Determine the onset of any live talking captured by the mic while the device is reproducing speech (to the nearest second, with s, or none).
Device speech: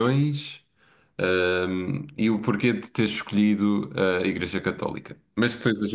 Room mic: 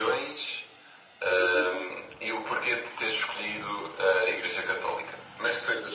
1 s